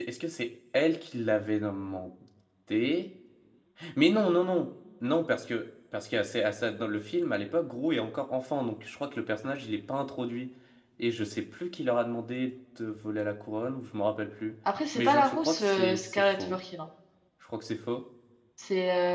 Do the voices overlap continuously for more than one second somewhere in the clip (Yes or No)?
Yes